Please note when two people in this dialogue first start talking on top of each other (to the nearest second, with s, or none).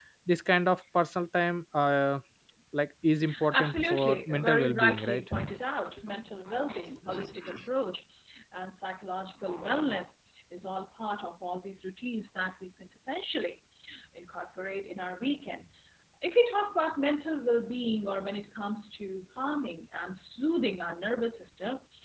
4 s